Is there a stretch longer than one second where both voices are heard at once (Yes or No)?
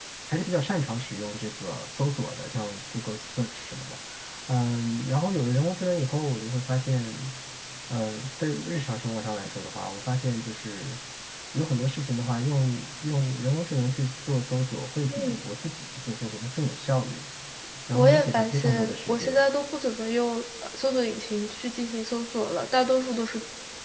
Yes